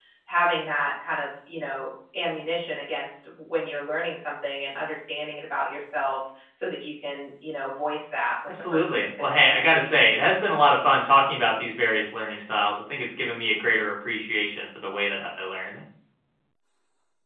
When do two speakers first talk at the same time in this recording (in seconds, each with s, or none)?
8.5 s